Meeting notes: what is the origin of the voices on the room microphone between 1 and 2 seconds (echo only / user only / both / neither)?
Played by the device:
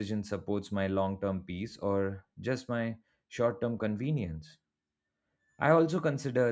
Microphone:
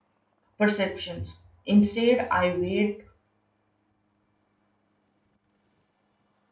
user only